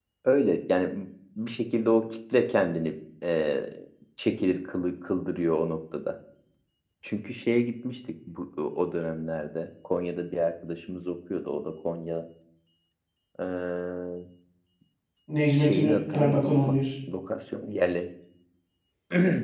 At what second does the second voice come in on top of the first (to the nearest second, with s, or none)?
16 s